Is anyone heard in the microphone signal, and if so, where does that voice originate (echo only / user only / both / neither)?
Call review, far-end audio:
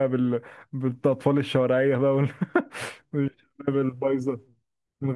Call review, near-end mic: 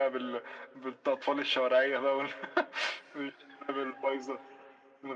echo only